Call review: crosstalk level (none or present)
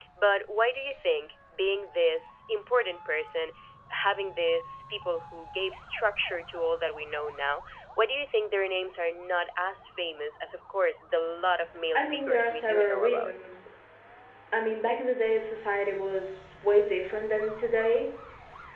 present